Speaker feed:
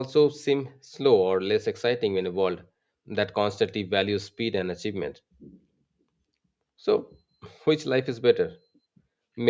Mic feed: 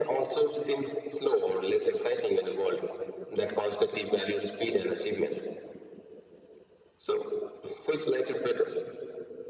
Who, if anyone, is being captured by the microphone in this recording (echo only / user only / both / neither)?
echo only